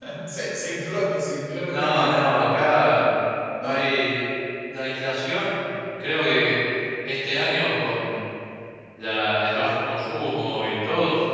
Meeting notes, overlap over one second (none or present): none